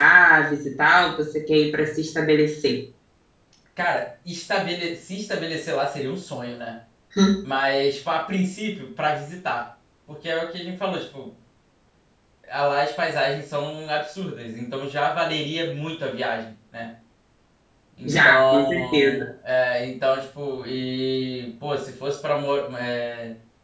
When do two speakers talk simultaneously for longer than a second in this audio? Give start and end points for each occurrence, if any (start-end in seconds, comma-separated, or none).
18.1-19.3